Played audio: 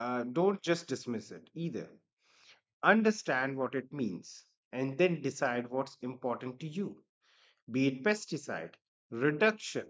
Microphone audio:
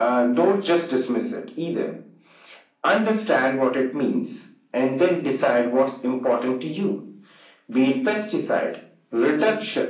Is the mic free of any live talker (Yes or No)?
Yes